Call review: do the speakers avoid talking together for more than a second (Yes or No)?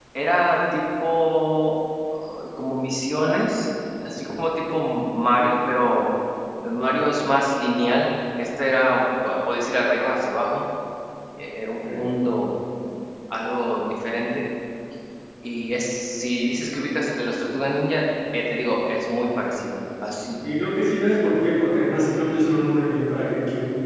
Yes